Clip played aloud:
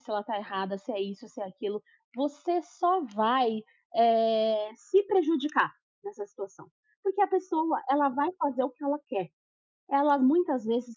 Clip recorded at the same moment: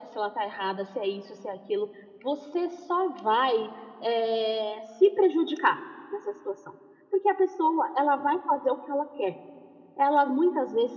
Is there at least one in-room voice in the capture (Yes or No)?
No